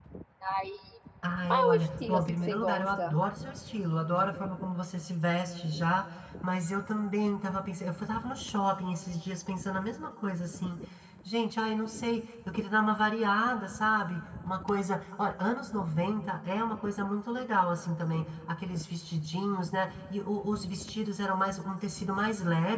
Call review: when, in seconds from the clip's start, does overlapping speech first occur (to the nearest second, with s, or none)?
2 s